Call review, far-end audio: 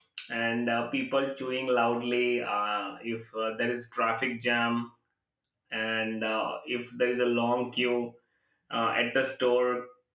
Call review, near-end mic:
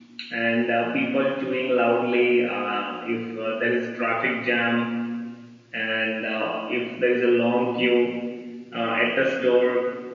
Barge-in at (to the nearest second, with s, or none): none